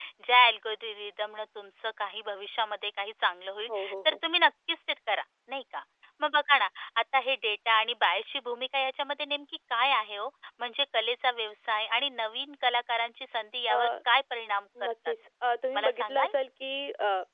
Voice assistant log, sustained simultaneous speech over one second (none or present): none